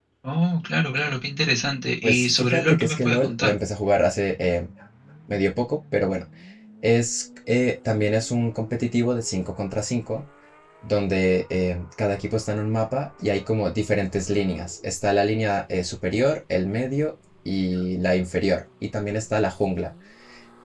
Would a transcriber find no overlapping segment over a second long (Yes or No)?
No